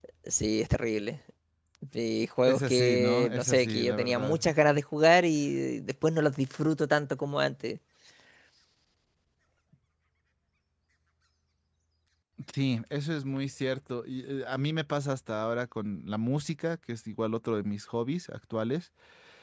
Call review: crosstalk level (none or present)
present